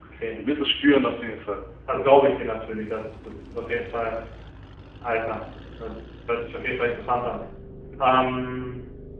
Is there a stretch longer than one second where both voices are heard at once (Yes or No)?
No